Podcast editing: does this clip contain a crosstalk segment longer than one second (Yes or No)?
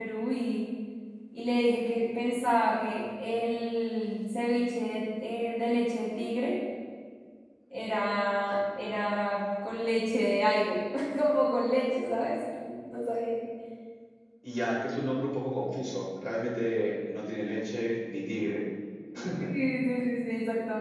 No